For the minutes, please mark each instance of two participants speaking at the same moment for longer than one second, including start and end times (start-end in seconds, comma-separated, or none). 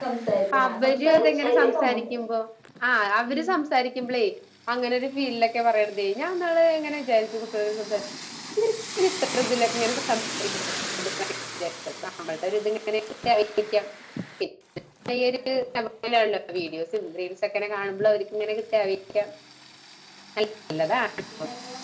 0.6-2.2